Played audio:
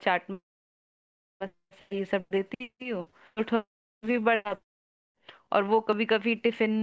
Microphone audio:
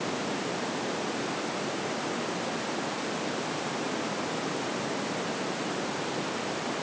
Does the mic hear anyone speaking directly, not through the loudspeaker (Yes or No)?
No